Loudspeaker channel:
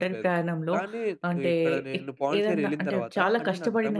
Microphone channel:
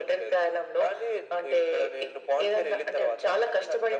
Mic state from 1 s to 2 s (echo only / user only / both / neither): echo only